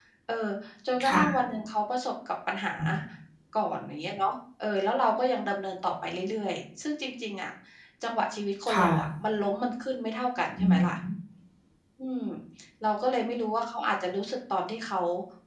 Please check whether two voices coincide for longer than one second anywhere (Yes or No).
No